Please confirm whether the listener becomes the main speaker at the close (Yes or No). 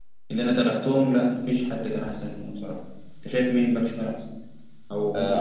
Yes